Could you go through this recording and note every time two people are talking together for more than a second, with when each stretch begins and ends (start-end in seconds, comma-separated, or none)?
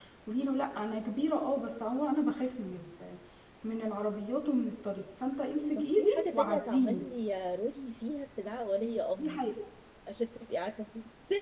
5.8-7.0